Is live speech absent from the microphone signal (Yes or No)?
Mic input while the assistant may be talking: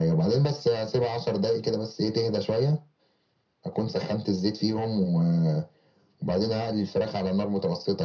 Yes